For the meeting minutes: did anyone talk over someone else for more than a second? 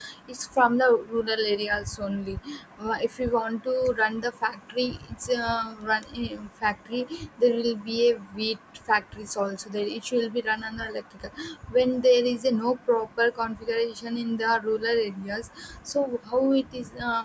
No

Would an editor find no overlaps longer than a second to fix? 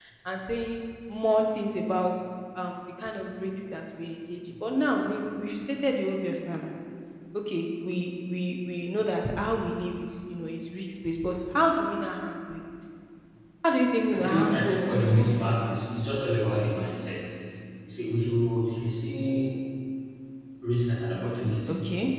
No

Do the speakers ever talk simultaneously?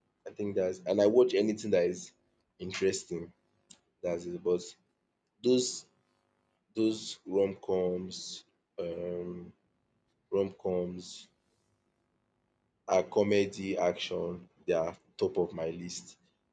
No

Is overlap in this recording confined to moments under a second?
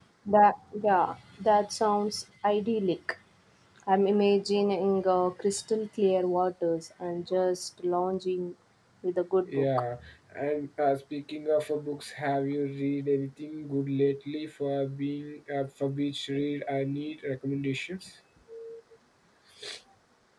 Yes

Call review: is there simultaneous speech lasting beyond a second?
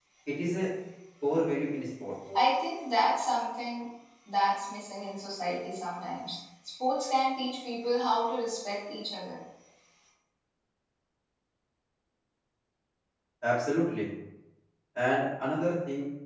No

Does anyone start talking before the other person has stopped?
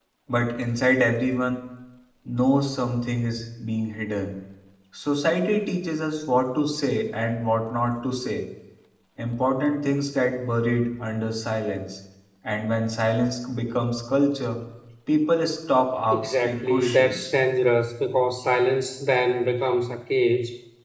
Yes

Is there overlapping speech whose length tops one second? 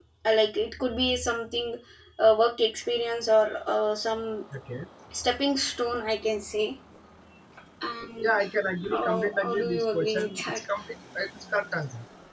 Yes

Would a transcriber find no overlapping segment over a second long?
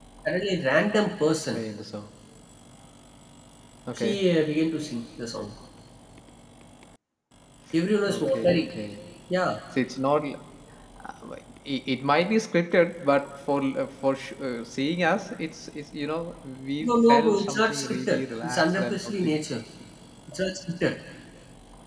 No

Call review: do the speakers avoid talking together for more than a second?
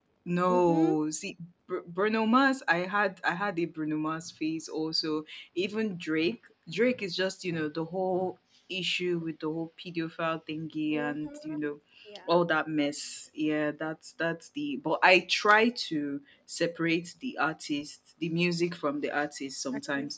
Yes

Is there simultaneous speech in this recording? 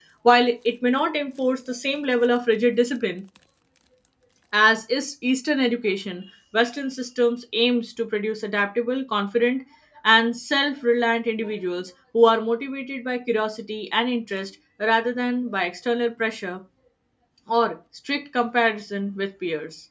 No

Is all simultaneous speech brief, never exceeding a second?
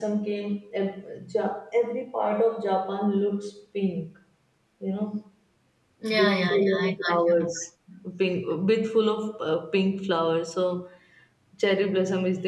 No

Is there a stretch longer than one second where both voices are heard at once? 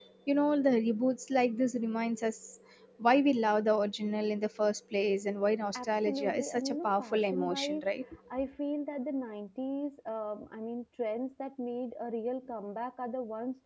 Yes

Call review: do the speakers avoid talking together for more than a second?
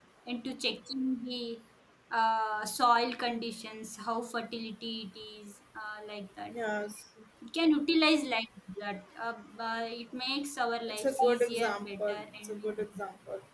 No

